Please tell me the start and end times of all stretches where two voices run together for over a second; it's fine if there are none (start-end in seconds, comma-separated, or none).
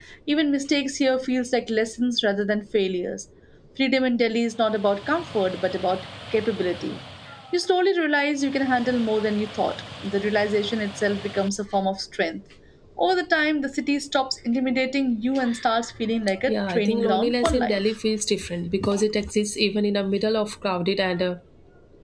16.4-17.8